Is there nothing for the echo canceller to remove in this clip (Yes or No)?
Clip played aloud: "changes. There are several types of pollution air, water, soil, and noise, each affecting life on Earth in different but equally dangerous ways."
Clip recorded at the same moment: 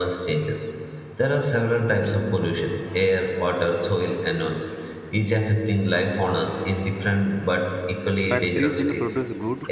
No